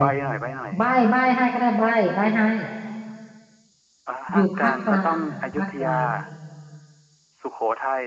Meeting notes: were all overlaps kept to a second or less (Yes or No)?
No